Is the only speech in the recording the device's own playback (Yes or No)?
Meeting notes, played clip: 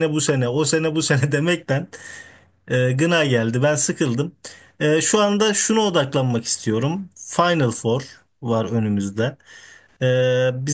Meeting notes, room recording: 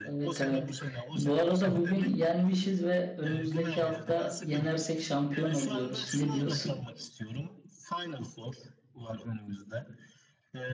No